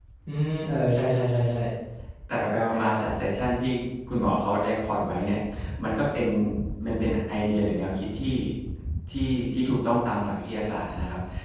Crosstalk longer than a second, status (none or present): none